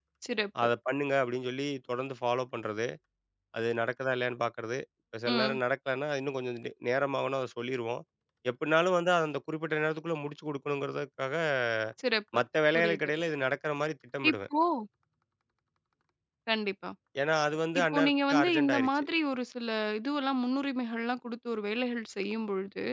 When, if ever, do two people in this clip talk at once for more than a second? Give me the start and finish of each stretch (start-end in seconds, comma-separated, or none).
17.8-19.0